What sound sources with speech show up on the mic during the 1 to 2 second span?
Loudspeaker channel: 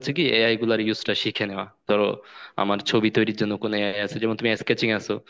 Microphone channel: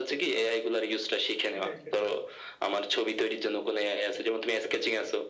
both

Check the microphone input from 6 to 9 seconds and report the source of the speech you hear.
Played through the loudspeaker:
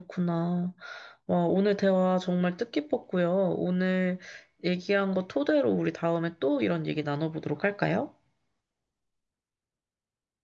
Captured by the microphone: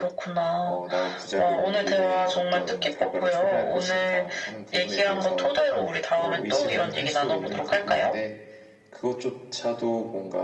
both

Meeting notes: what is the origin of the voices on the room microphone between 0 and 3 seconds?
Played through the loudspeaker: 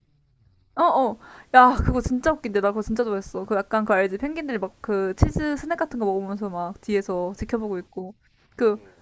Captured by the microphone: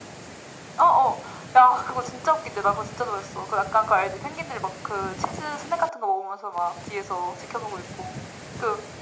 echo only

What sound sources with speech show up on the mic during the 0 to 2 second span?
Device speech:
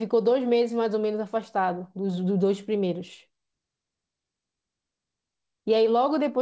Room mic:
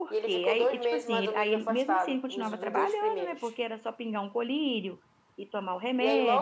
both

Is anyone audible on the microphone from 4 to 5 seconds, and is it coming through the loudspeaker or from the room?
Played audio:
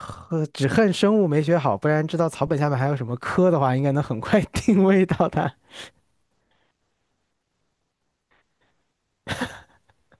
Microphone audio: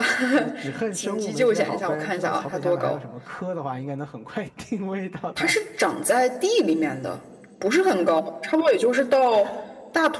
echo only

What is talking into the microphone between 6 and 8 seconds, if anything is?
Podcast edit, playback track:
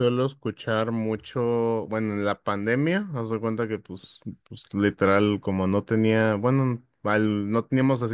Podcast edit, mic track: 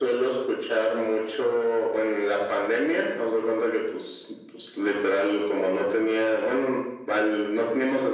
echo only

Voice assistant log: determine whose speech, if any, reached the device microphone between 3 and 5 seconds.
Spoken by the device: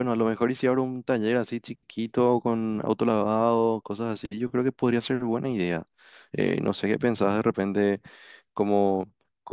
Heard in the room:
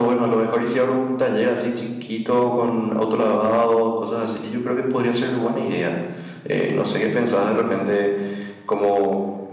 echo only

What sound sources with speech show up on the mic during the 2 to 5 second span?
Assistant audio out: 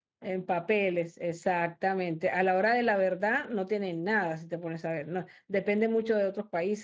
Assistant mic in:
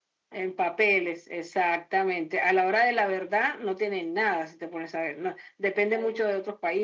echo only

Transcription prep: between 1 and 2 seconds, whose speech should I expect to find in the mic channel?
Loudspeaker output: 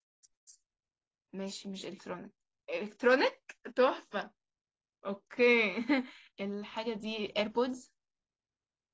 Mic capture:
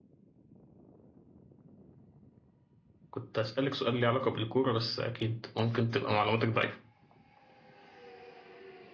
neither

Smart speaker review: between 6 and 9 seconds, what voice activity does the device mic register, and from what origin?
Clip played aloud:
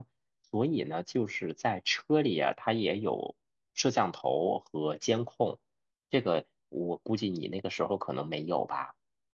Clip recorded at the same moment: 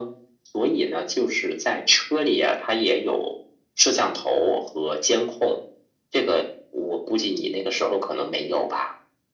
echo only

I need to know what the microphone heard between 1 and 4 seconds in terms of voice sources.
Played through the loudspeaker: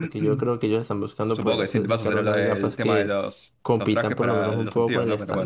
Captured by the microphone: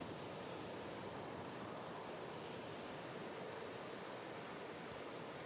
neither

